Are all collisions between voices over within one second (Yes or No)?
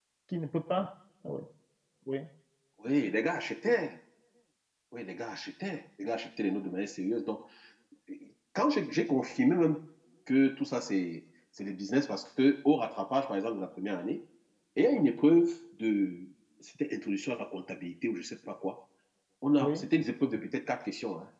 Yes